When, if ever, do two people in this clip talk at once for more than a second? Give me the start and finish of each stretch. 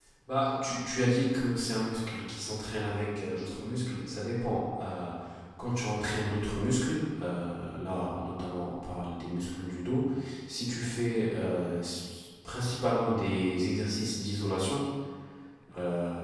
none

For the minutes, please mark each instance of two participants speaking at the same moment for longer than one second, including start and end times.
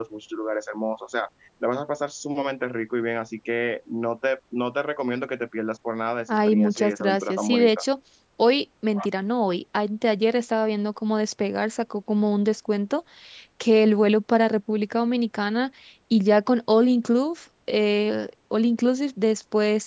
6.3-7.8

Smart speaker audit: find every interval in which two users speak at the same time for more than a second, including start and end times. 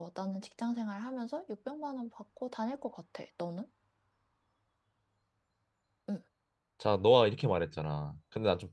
none

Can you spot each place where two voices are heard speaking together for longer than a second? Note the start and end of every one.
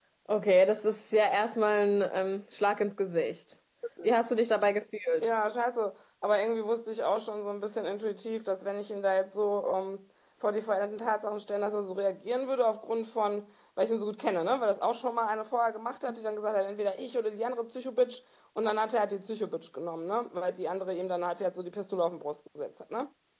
none

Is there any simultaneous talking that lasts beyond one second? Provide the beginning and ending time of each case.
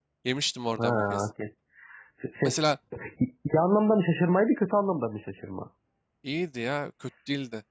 none

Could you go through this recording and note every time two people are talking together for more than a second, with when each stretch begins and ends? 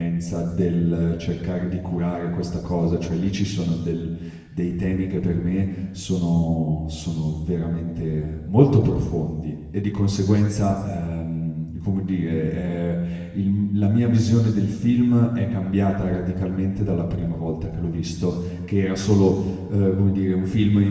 none

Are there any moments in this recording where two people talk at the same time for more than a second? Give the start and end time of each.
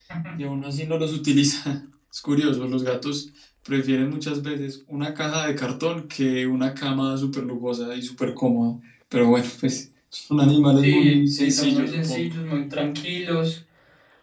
10.8-12.3

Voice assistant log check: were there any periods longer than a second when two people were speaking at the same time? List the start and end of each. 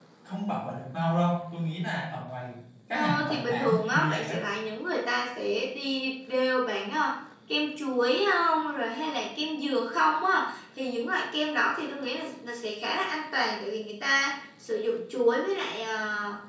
2.9-4.5

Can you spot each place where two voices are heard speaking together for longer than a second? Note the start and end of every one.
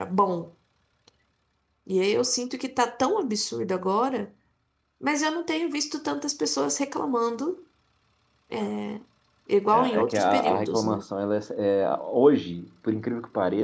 9.7-11.0

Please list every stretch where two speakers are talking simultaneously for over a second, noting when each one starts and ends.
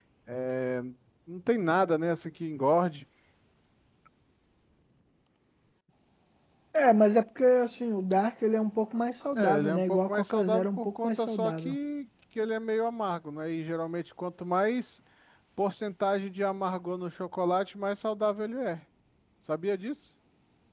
9.3-11.8

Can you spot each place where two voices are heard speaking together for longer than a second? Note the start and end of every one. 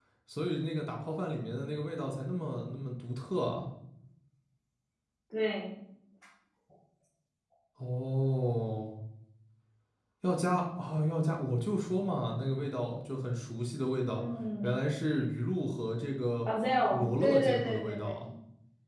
16.9-18.3

